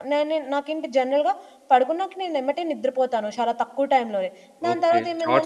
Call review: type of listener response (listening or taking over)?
taking over